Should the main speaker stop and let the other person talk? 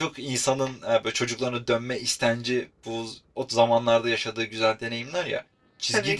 No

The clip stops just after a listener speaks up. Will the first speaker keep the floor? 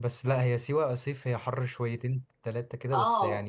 No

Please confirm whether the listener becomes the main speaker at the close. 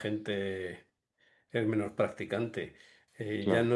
No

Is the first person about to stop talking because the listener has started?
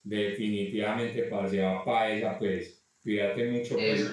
No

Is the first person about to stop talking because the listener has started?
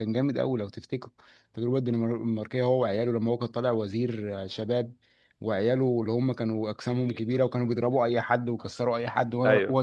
No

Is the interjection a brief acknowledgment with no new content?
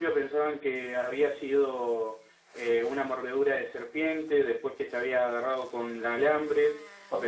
No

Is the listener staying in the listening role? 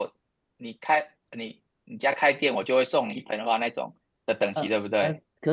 No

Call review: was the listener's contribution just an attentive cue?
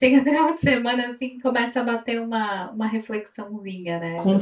No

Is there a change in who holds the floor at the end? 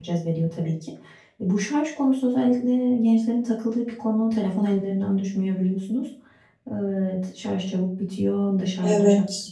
No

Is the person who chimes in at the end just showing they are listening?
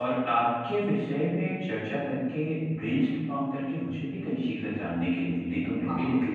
Yes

